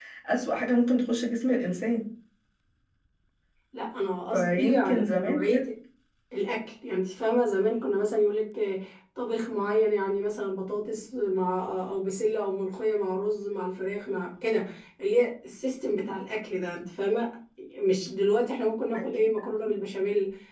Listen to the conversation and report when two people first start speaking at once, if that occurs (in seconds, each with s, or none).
4.3 s